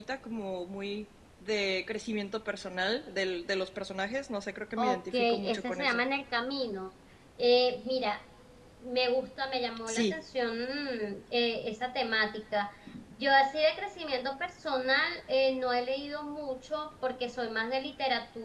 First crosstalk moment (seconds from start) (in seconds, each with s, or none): 4.8 s